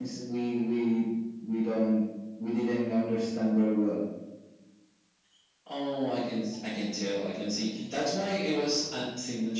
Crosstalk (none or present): none